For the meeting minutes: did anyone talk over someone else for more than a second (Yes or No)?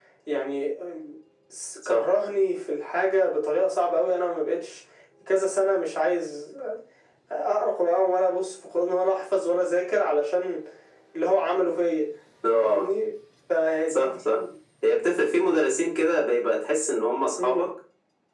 No